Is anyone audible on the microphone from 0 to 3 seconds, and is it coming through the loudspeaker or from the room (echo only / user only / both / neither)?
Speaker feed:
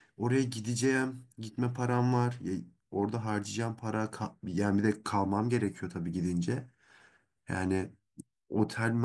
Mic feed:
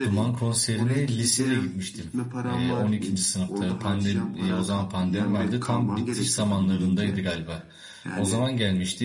both